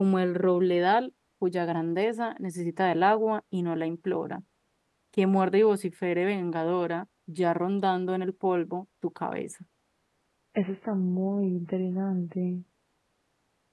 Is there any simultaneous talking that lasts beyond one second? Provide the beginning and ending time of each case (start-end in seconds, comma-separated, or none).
none